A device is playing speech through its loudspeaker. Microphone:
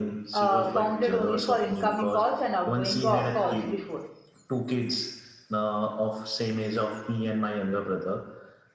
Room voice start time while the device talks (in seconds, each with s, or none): 0.3 s